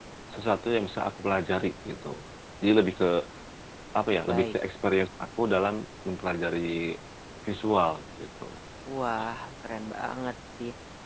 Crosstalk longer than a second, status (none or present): none